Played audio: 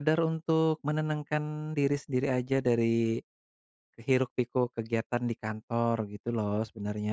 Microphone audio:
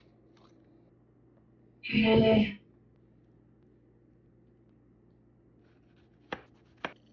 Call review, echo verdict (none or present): none